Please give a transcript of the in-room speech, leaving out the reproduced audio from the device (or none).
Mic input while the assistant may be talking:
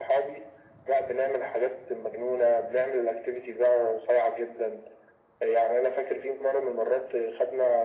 none